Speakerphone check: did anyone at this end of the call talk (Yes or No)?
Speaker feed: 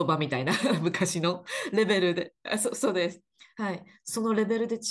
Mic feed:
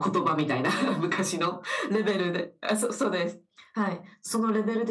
No